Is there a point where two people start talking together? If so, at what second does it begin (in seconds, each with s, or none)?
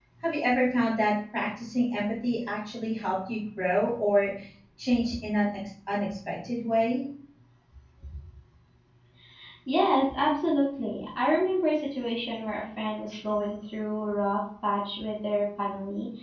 none